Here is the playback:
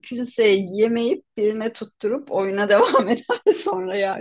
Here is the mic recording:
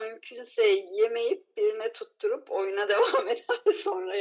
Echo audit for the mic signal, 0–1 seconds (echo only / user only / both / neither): echo only